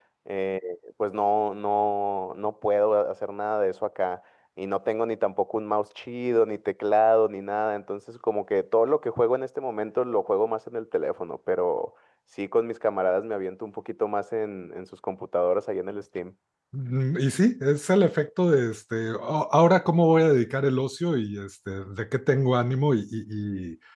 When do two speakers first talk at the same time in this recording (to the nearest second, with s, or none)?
none